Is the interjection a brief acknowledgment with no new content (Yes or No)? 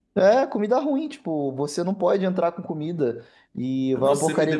No